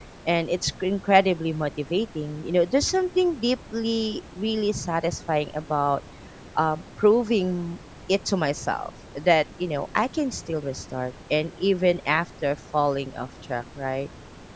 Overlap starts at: none

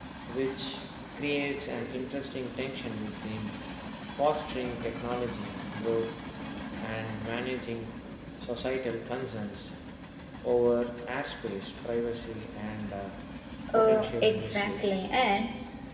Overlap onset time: 14 s

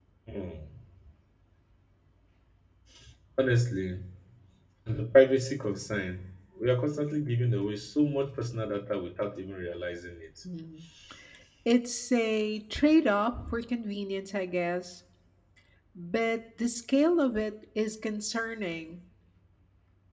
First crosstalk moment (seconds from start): none

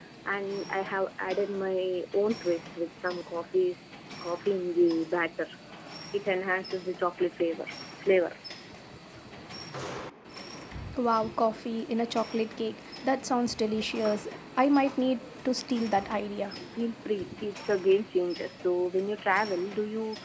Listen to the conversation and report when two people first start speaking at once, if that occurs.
none

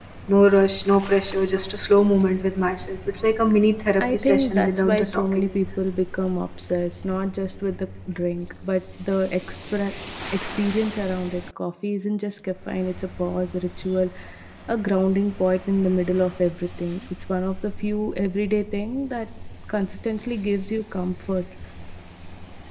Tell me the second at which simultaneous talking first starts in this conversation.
4 s

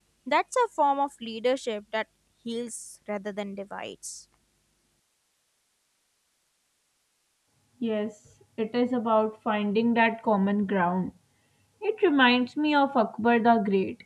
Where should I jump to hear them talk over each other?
none

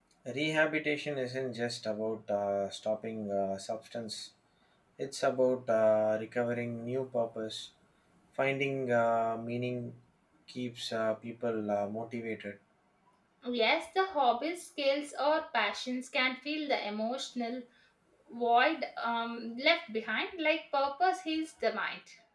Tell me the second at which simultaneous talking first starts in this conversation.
none

